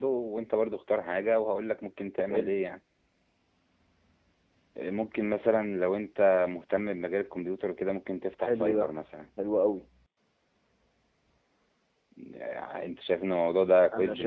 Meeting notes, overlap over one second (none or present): none